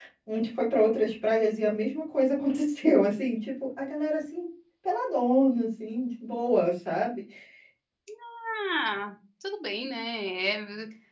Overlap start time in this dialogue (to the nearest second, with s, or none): none